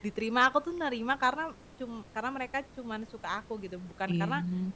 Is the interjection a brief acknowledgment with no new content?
Yes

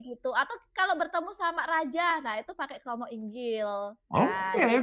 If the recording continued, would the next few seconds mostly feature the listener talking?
Yes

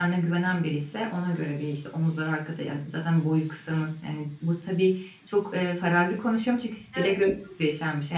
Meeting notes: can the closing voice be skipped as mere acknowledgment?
Yes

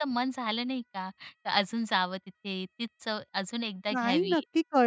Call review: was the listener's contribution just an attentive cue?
No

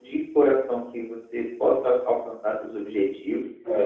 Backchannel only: Yes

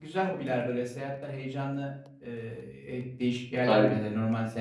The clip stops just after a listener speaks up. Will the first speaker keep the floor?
Yes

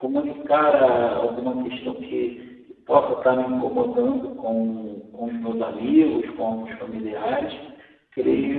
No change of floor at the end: Yes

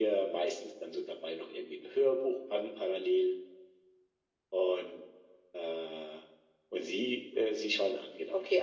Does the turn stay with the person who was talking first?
No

